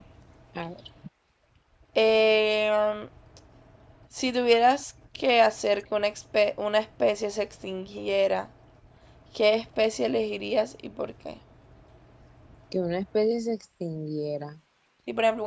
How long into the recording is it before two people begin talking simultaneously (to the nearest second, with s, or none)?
none